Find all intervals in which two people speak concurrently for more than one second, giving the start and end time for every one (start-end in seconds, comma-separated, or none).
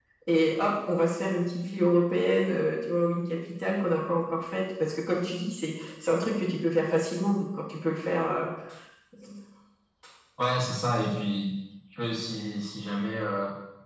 none